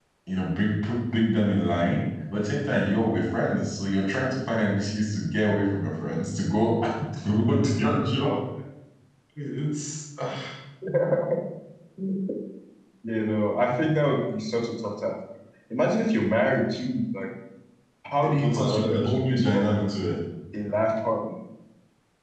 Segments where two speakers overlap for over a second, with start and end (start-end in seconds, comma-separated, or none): 18.2-19.8